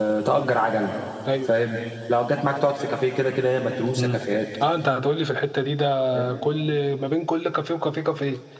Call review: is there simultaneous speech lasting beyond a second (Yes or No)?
No